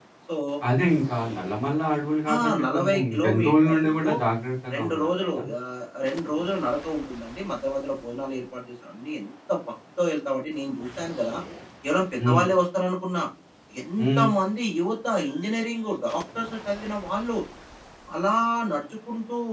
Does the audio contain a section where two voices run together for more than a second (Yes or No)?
Yes